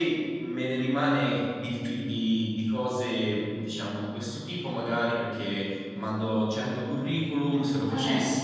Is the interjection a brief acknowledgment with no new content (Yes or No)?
Yes